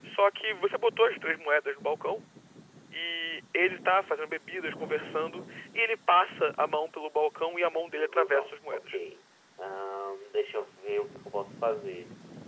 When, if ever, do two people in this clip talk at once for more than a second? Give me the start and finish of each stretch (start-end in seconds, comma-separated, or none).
7.7-9.0